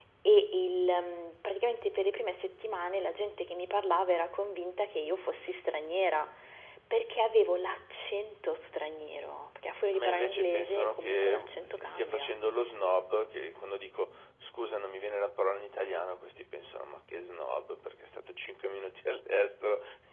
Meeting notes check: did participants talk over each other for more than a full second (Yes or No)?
Yes